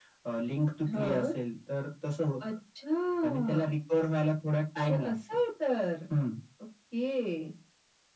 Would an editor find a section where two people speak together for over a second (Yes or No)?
No